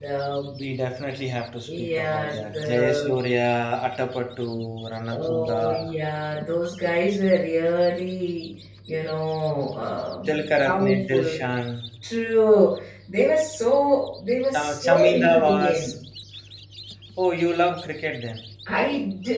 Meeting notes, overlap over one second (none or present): present